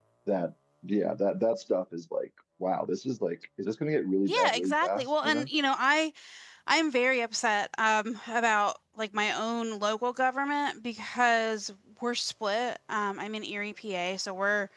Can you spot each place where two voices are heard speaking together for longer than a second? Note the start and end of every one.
4.2-5.5

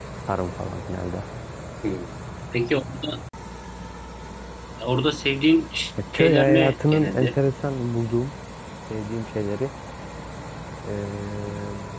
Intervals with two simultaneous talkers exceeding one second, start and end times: 6.1-7.3

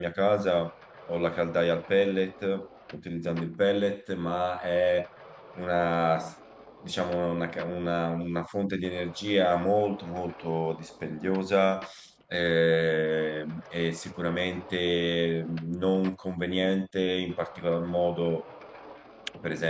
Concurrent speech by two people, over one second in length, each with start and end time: none

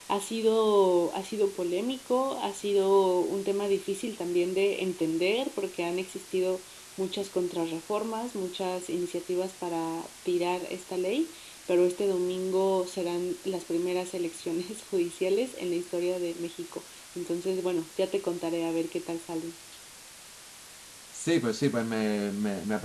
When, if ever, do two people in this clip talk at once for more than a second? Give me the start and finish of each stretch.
none

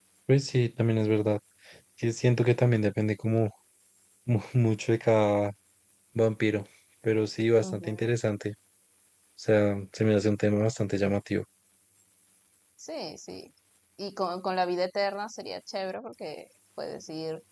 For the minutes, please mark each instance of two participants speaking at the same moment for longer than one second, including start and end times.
none

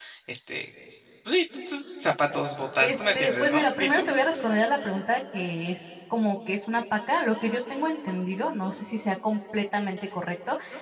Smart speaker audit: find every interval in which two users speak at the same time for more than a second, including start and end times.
2.8-4.1

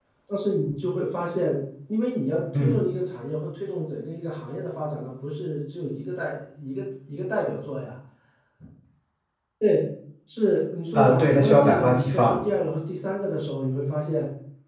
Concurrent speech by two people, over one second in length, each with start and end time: 10.9-12.5

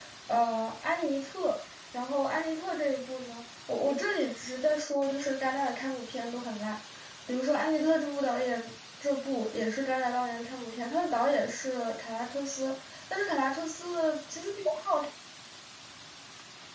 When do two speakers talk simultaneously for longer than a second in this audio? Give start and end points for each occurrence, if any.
none

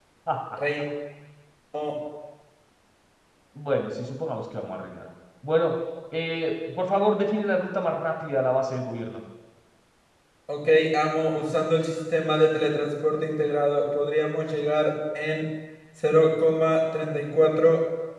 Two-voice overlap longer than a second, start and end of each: none

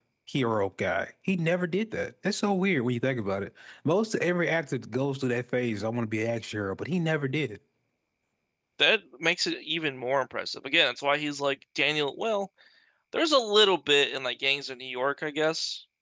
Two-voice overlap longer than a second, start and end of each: none

